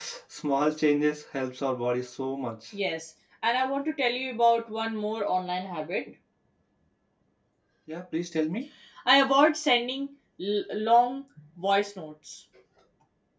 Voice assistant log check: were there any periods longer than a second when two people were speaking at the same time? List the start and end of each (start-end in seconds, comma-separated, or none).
none